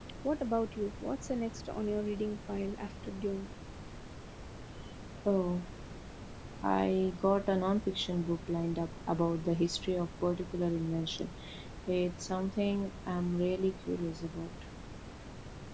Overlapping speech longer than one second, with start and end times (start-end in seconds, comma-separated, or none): none